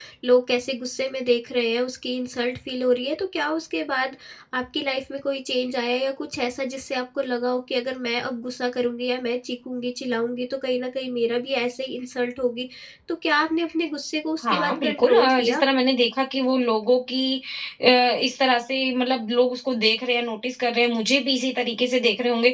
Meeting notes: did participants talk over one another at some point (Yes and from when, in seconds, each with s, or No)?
Yes, from 14.4 s